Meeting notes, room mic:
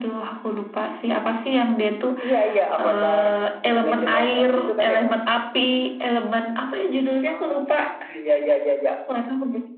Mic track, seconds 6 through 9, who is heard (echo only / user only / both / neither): echo only